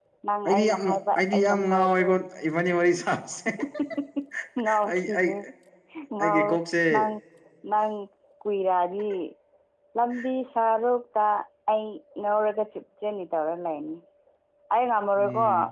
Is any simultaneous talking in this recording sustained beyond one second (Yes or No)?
Yes